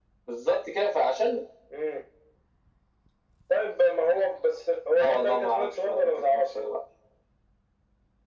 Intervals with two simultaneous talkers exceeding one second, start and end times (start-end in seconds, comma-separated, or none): 5.0-6.5